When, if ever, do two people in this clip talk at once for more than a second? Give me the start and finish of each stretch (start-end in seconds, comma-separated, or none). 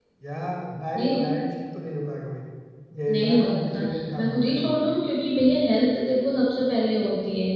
3.1-4.8